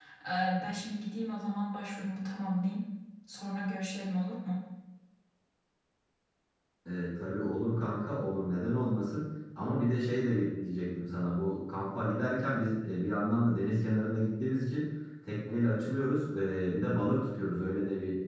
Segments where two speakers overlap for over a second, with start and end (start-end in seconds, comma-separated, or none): none